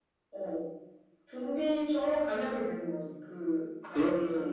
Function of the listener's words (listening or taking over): taking over